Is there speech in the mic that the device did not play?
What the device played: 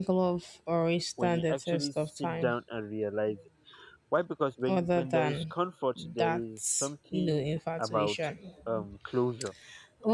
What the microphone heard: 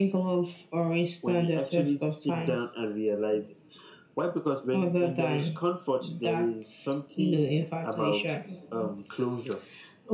No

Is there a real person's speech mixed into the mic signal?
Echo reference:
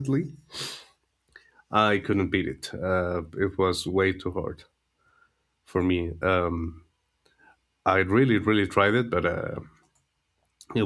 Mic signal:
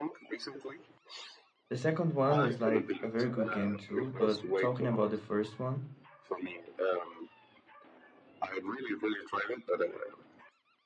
Yes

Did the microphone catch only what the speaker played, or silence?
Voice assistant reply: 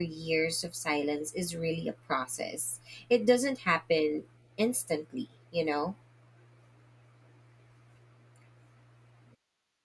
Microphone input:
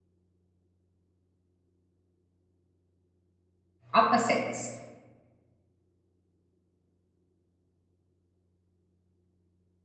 No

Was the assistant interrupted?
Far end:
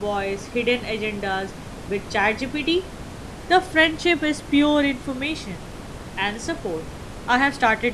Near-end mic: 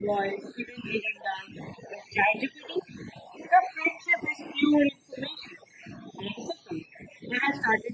No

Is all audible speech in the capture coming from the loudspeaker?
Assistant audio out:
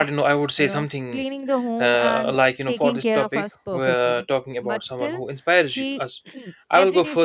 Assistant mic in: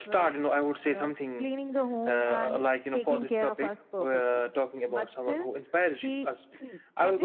Yes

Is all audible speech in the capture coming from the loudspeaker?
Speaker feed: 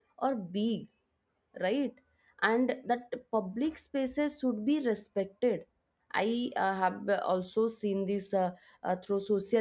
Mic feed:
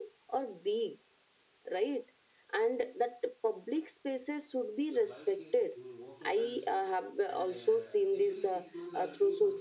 No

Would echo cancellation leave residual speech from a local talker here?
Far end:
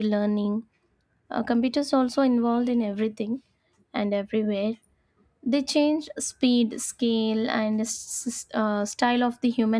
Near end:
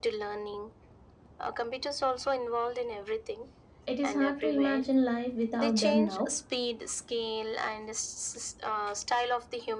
Yes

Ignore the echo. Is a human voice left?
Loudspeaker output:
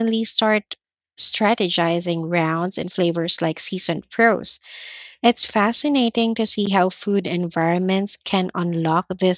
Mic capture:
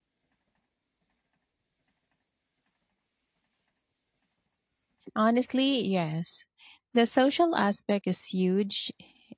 Yes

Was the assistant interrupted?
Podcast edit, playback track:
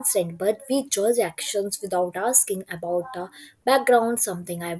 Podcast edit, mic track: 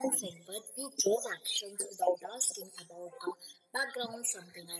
No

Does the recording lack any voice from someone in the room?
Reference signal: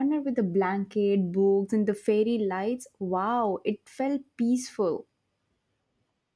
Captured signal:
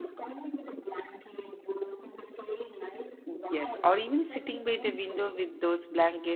No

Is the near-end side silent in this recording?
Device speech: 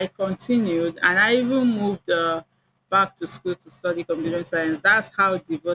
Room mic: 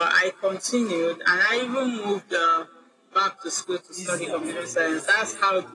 No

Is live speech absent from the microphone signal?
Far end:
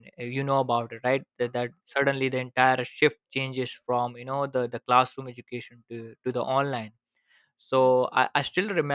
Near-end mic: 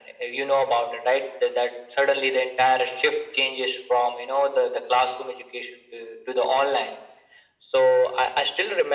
Yes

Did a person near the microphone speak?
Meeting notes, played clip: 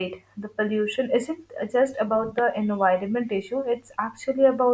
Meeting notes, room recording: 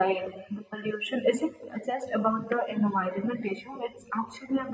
No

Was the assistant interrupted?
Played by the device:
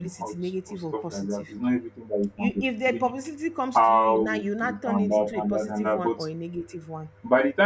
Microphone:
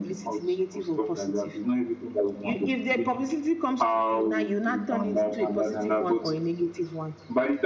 No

